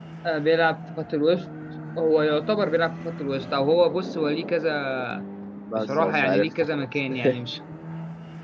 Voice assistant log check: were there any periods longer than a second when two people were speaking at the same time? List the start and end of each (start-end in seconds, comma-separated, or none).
5.8-7.6